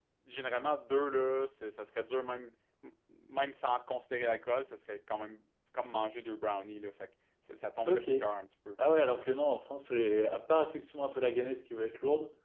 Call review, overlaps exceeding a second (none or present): none